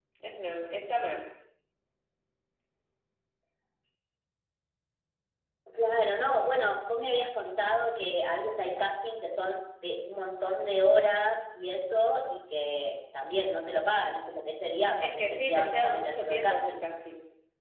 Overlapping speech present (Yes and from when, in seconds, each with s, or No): Yes, from 15.0 s